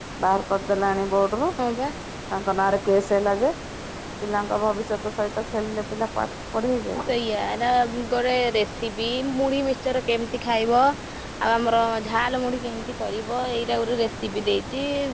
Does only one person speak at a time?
Yes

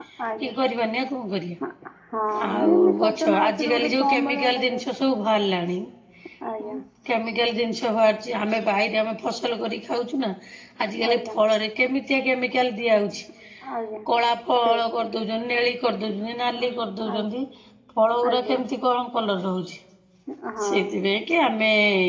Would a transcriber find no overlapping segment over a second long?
No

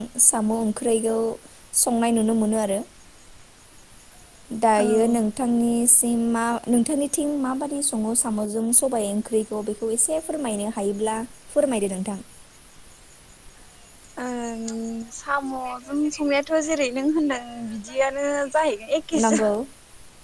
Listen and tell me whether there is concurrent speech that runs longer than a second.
No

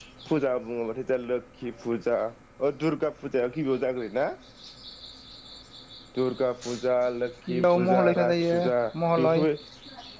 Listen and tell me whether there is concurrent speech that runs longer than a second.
Yes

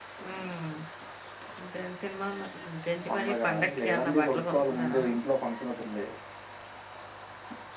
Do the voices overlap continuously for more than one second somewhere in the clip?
Yes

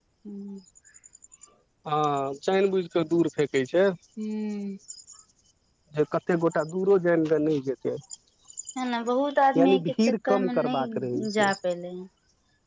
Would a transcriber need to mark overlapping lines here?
Yes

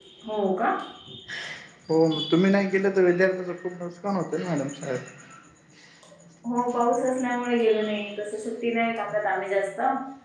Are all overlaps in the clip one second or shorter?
Yes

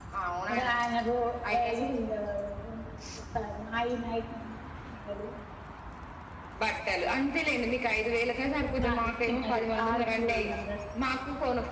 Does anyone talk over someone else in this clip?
Yes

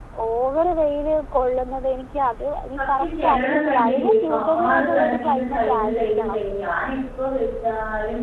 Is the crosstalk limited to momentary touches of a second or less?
No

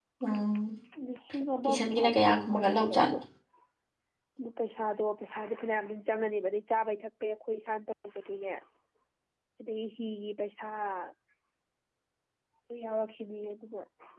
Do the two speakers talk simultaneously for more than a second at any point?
Yes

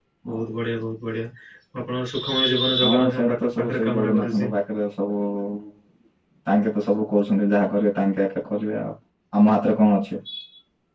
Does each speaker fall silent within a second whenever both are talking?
No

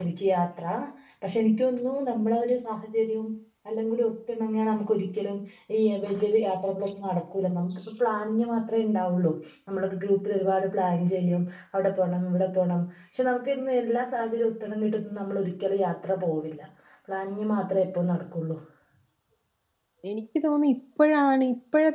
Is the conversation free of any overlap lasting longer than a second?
Yes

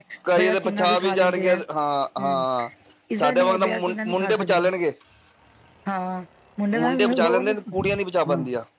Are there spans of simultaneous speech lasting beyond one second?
Yes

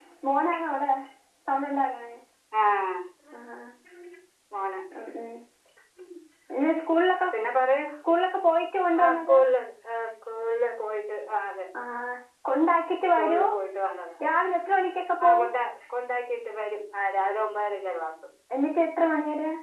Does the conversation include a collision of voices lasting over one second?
No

